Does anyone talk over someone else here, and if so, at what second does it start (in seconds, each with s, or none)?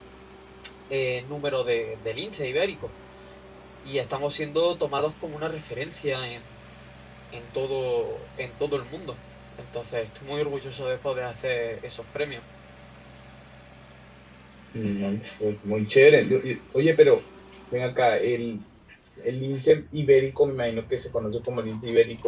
none